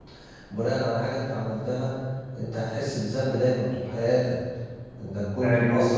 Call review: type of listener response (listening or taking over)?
taking over